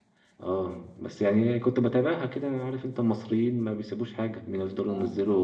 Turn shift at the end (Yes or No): No